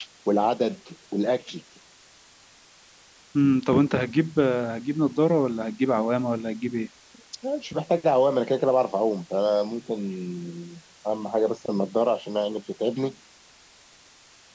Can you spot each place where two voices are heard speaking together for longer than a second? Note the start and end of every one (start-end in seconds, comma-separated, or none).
none